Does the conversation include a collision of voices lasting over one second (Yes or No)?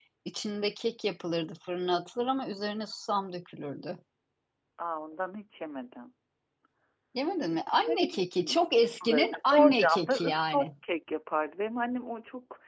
Yes